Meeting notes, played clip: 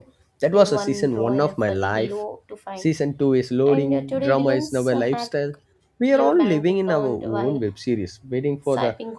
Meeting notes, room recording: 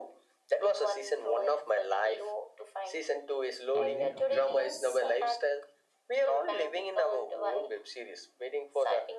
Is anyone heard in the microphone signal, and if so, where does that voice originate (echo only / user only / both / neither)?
both